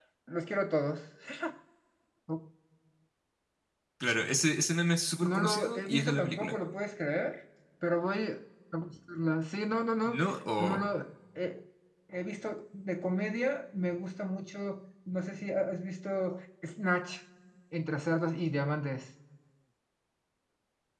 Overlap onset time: 5.2 s

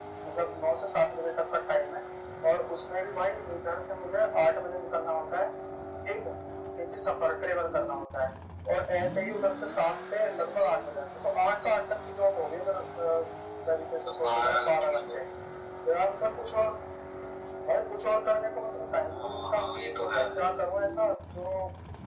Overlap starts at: 14.0 s

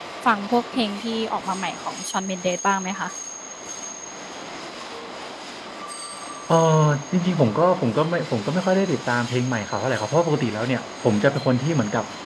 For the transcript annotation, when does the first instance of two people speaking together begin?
none

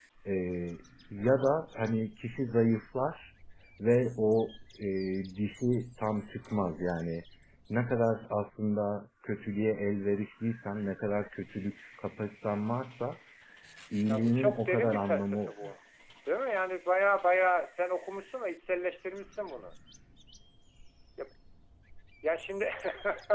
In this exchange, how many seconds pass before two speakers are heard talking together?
14.1 s

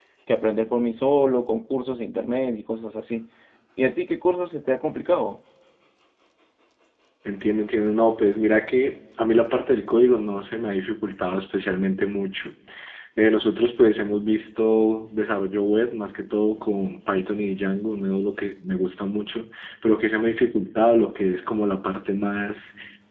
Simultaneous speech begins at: none

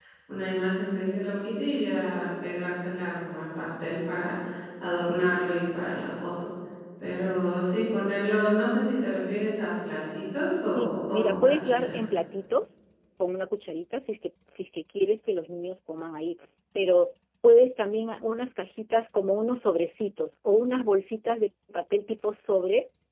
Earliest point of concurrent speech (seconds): 10.8 s

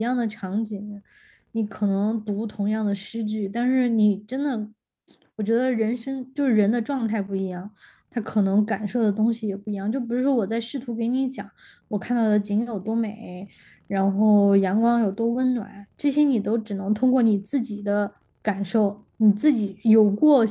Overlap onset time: none

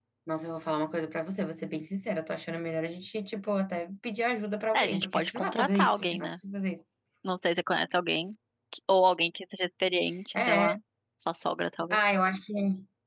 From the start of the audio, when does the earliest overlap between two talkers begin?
4.7 s

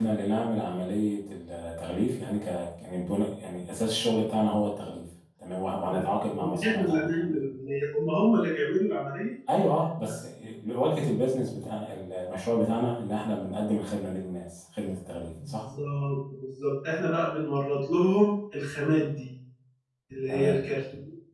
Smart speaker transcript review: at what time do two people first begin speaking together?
5.9 s

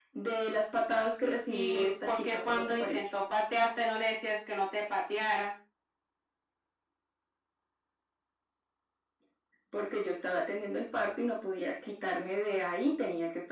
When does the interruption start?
1.5 s

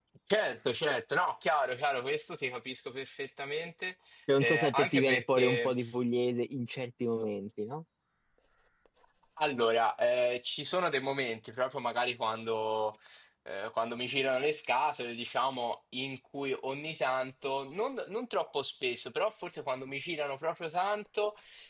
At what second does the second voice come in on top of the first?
4.4 s

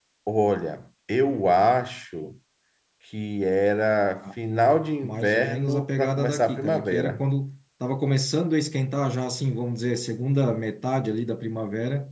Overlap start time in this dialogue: 5.0 s

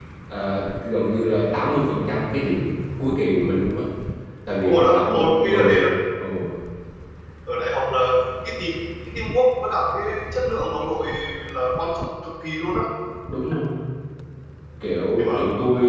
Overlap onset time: 4.6 s

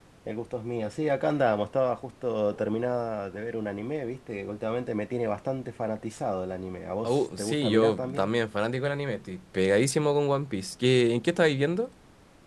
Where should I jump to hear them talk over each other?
7.0 s

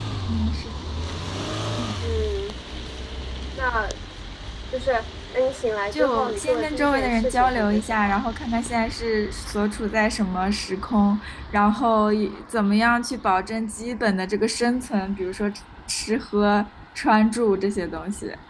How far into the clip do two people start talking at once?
5.9 s

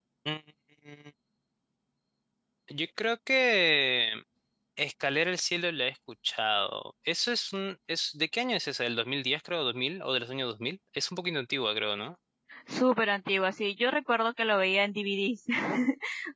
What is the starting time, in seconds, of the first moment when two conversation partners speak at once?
none

